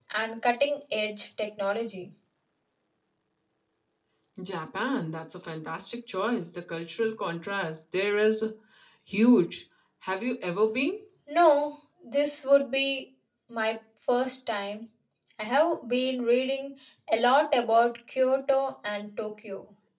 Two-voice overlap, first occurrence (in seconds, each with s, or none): none